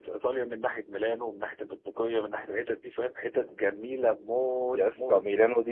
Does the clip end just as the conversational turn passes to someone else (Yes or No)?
Yes